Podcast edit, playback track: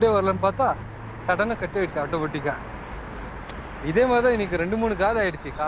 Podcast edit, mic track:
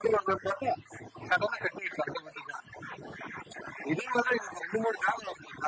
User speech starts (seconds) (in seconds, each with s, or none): none